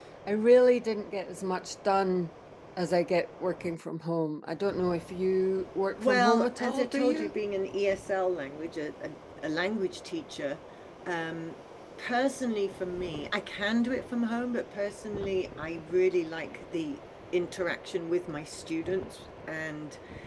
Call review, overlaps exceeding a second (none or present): present